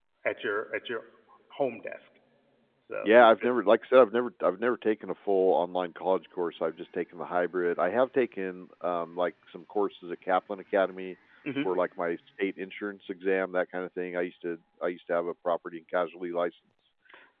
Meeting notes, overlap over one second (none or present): none